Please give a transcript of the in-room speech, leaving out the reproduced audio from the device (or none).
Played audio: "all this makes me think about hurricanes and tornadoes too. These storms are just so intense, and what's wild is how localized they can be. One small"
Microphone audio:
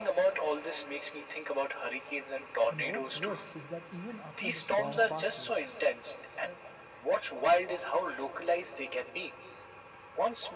And what's worse is that even after the storm passes,